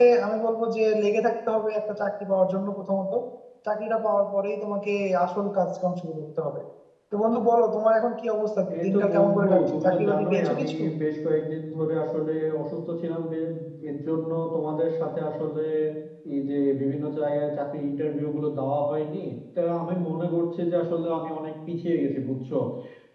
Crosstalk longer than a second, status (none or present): present